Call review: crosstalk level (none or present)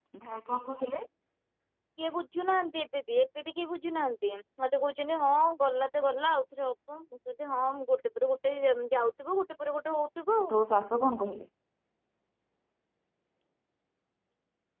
none